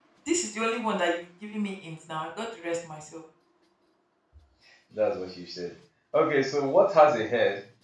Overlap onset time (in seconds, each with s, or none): none